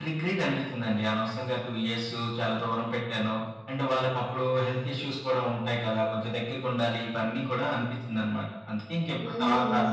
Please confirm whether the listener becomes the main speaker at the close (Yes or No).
Yes